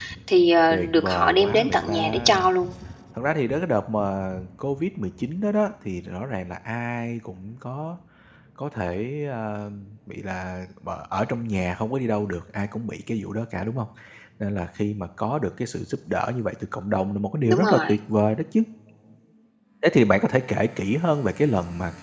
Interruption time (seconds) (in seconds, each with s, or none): 0.7 s